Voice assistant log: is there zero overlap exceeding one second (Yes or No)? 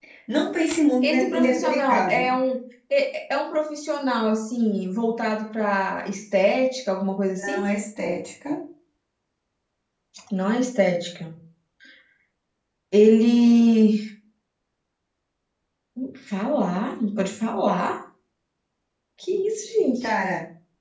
No